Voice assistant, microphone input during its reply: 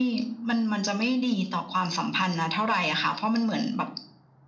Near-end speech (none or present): none